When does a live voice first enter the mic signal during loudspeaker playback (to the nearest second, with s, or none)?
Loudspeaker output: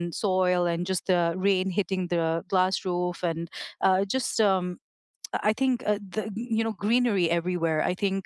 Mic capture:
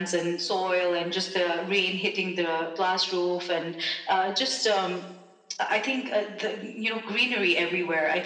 none